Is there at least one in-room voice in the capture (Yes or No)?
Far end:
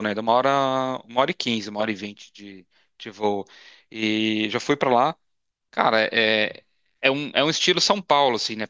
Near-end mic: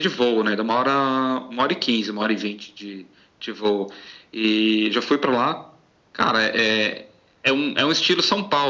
No